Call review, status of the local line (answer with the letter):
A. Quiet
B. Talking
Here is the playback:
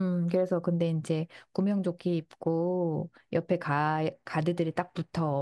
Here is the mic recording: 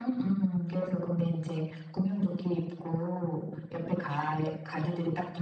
A